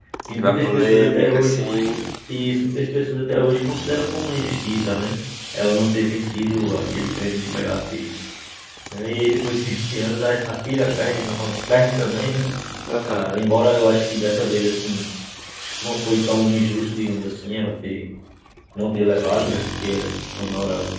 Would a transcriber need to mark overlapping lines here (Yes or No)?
Yes